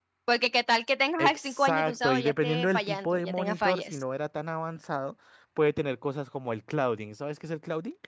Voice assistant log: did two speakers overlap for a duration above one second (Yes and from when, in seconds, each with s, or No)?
Yes, from 1.2 s